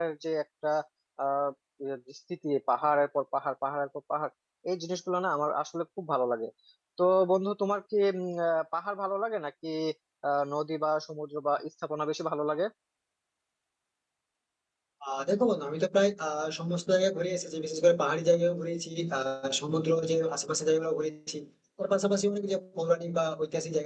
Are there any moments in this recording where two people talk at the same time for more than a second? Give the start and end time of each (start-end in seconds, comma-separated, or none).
none